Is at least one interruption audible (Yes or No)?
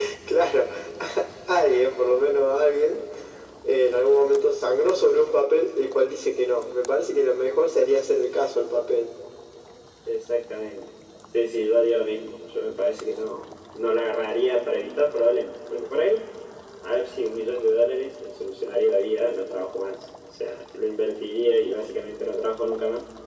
No